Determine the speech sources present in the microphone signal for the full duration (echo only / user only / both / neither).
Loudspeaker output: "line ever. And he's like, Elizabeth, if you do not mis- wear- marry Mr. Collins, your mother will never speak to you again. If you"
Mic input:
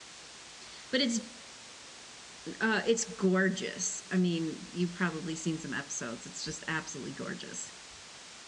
user only